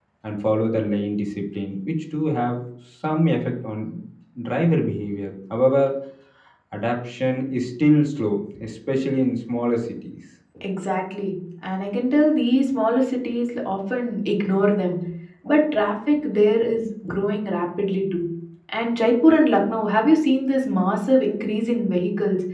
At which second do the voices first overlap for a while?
none

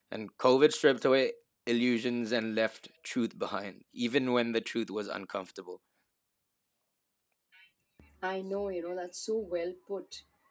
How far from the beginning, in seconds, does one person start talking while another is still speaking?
none

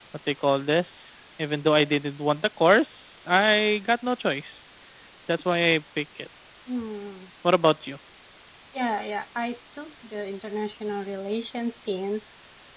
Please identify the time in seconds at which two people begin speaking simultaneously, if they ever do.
none

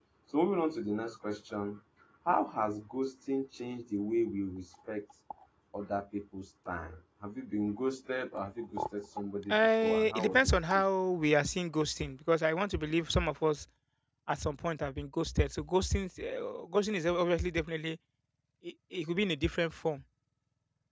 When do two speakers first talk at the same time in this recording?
9.5 s

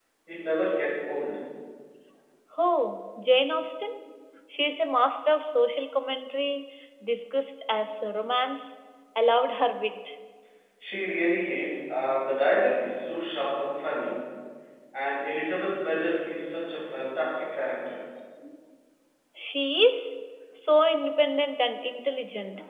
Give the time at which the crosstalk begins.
none

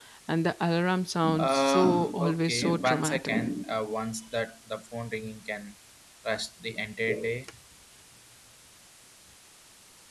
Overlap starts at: 1.2 s

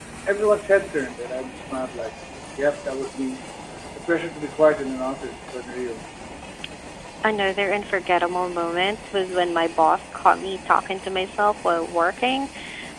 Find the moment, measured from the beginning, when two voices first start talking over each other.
none

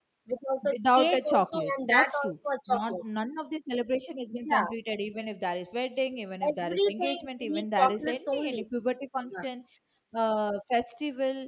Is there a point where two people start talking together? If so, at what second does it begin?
0.7 s

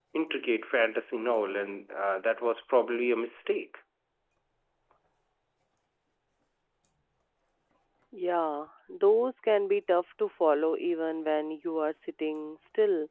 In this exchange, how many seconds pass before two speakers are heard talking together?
none

